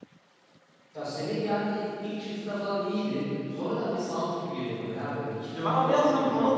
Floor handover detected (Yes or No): Yes